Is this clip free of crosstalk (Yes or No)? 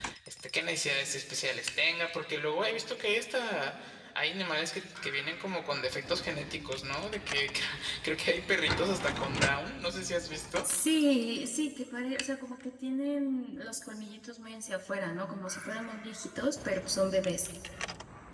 Yes